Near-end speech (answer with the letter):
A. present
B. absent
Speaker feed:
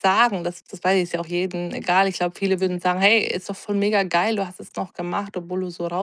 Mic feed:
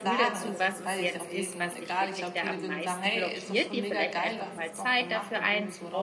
A